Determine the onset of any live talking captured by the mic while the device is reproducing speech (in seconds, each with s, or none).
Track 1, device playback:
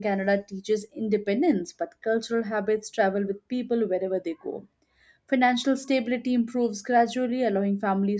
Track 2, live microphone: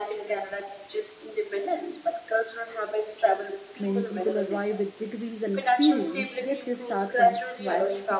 3.8 s